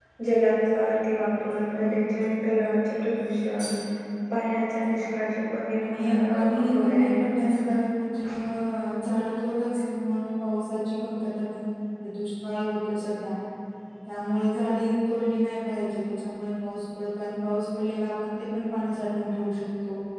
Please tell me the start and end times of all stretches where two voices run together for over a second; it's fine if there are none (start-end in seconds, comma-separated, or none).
5.8-7.2